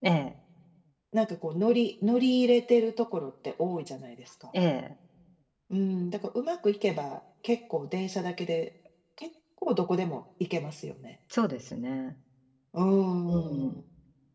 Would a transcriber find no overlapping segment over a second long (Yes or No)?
Yes